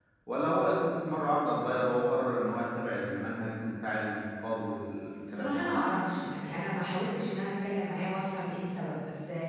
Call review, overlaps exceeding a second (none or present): none